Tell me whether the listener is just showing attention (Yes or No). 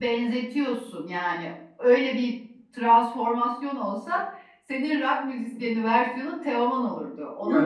No